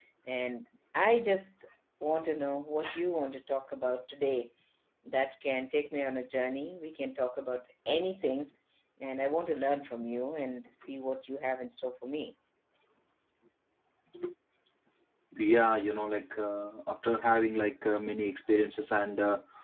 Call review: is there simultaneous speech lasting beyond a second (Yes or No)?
No